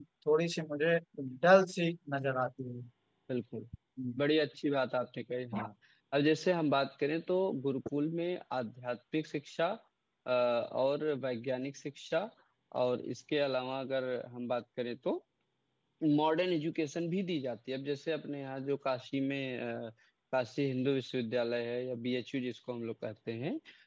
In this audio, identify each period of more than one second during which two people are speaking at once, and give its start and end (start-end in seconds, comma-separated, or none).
none